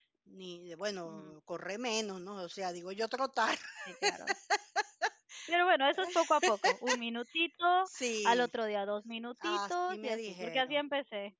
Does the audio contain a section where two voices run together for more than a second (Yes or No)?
Yes